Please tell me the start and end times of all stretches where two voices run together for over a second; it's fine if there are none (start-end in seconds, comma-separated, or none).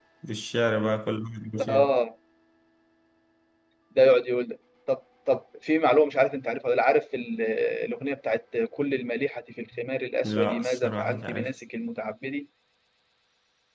10.2-11.5